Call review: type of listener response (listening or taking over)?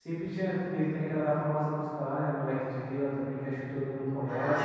taking over